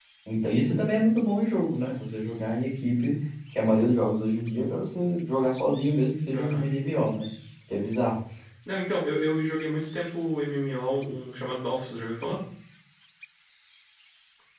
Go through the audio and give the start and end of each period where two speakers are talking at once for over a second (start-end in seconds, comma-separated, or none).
none